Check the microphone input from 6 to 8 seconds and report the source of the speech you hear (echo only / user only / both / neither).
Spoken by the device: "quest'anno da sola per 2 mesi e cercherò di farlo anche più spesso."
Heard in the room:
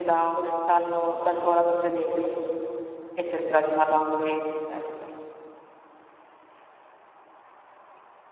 neither